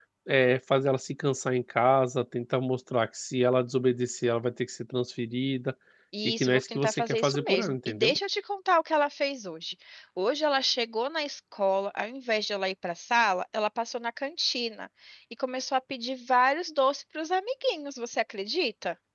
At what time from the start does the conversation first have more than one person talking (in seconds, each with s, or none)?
6.2 s